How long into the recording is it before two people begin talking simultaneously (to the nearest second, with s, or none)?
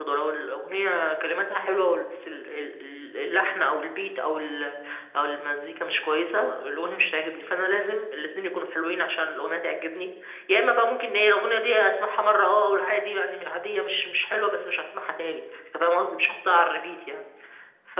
none